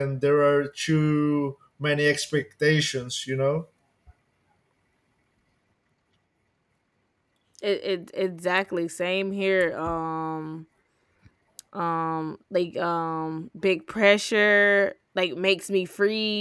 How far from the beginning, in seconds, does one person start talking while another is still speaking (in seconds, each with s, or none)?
none